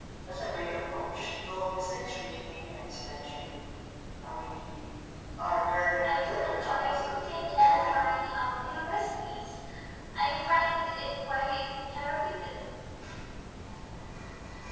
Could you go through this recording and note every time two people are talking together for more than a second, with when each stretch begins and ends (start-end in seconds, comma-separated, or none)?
6.0-8.0